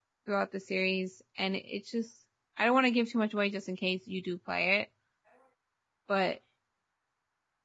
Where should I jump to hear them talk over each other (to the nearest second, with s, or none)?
none